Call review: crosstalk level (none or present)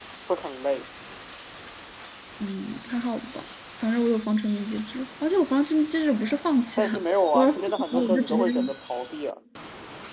present